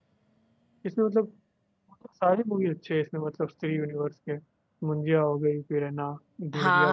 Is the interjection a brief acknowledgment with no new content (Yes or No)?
No